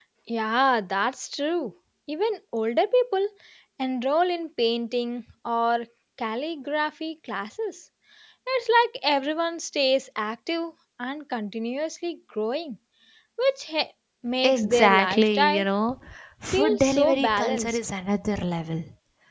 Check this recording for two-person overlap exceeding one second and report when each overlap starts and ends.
14.4-15.7, 16.5-17.8

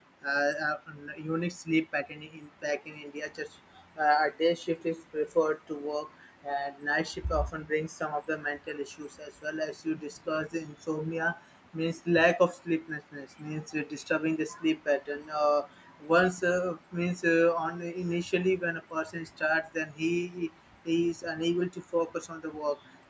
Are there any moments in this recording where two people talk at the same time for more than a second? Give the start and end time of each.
none

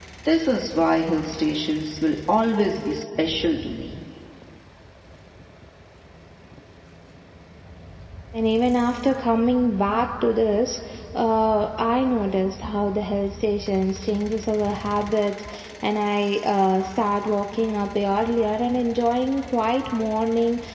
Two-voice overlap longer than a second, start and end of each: none

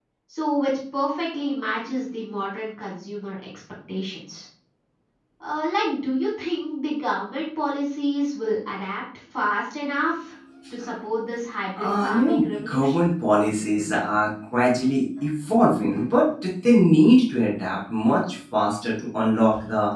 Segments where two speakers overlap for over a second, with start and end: 11.8-13.0

